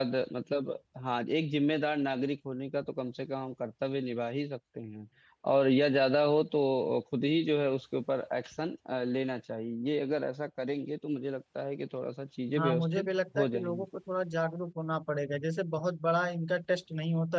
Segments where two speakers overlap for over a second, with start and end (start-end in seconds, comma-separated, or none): 12.6-13.8